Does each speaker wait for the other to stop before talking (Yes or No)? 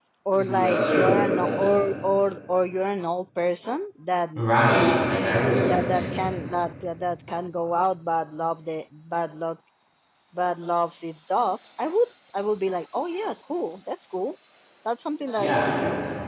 No